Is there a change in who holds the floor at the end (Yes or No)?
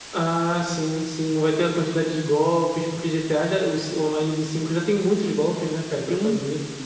Yes